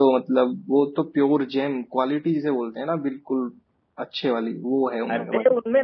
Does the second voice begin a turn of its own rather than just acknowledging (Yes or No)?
Yes